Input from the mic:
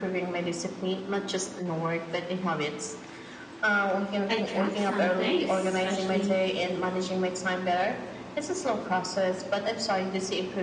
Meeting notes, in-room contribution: present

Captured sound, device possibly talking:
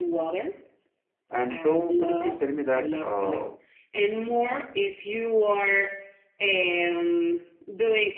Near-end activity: present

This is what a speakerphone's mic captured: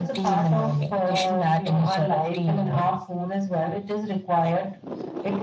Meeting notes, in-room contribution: none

